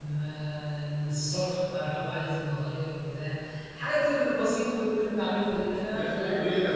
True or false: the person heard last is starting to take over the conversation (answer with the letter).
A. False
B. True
B